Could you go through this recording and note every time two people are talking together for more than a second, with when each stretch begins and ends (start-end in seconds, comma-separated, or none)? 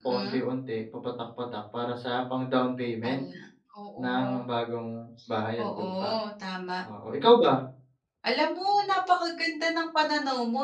none